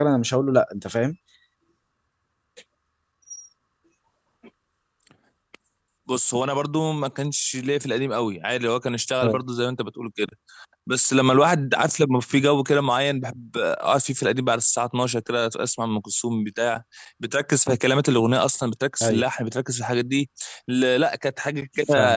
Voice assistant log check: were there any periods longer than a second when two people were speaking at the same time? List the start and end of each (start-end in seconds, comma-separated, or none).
none